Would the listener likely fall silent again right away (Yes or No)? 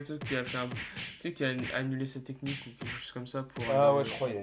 No